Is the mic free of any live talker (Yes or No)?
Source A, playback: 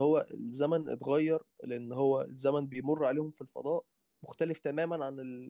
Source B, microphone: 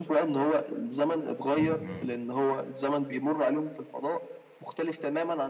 No